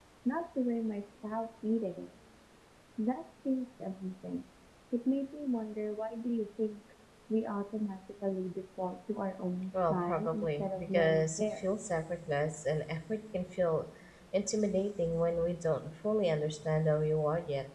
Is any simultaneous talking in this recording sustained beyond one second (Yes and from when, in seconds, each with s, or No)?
Yes, from 9.7 s